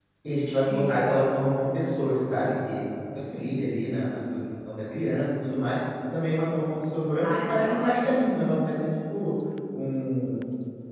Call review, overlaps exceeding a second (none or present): present